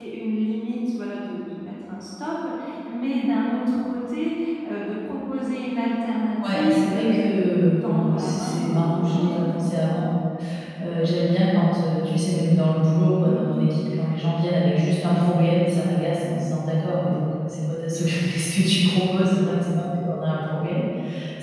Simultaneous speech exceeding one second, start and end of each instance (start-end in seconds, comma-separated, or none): 6.5-9.6